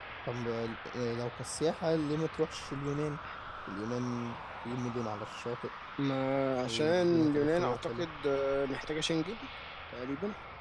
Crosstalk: present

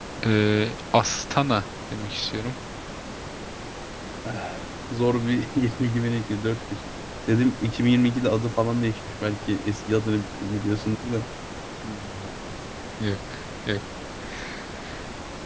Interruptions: none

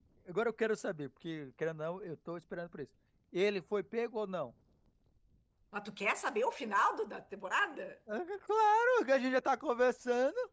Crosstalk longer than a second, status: none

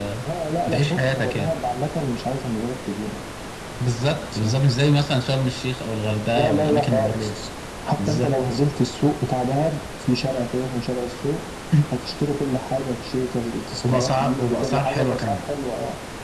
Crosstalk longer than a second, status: present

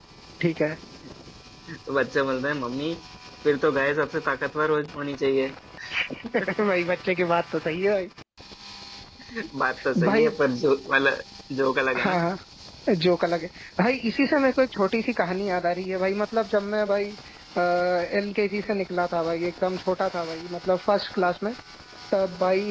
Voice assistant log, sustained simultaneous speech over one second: none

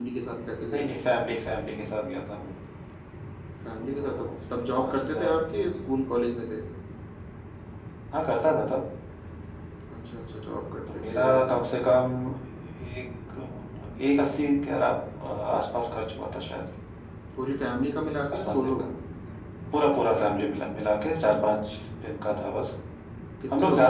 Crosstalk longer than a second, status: present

